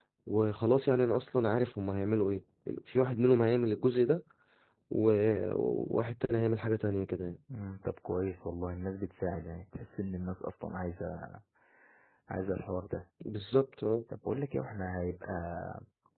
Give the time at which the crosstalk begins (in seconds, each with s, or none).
none